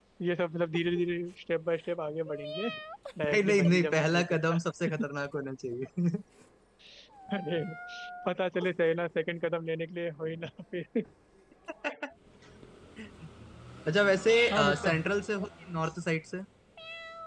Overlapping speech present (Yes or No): Yes